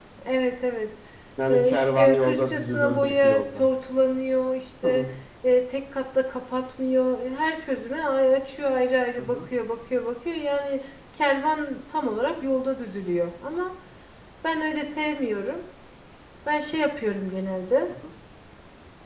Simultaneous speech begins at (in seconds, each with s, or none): 1.5 s